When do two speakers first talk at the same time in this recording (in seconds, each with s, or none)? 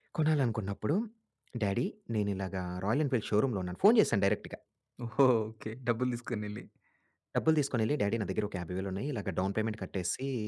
none